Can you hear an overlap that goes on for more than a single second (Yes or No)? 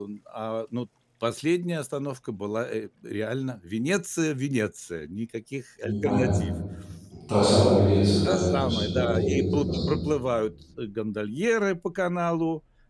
Yes